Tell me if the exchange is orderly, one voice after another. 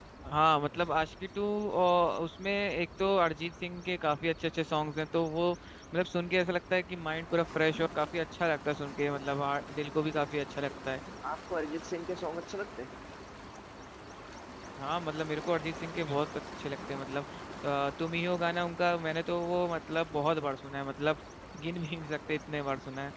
Yes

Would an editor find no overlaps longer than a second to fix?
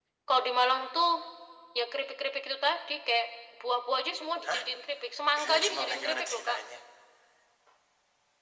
No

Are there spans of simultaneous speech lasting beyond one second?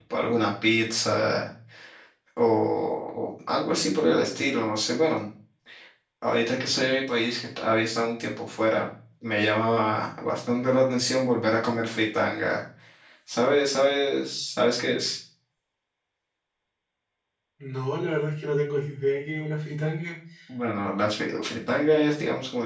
No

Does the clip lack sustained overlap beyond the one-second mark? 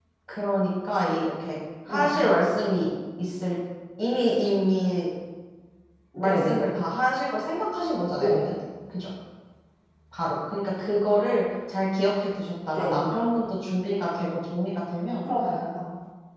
Yes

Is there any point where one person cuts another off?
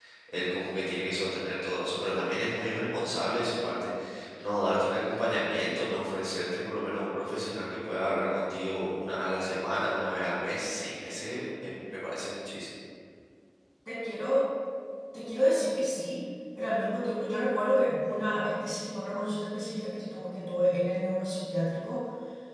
No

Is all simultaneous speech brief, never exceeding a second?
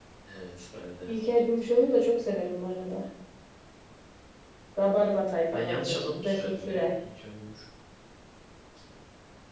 No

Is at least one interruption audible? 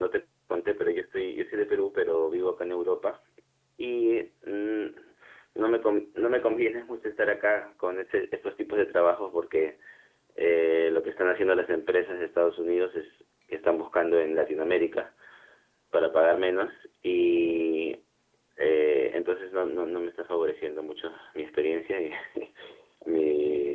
No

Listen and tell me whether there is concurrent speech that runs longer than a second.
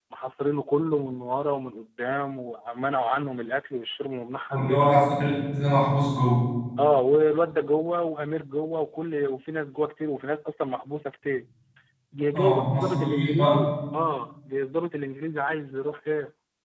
Yes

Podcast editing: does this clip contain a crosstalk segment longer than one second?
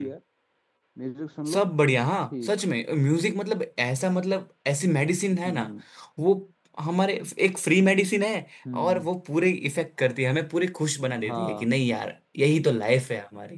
No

